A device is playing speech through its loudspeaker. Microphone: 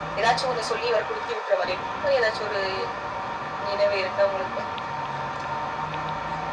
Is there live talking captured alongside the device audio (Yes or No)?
No